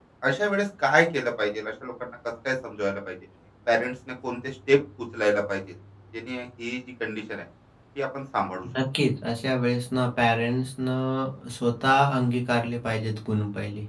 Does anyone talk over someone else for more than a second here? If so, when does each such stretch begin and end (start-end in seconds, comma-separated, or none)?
none